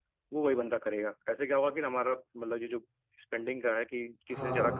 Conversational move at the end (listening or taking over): listening